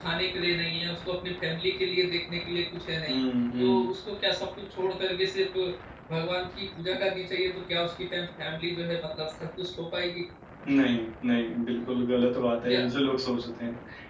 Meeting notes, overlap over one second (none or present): none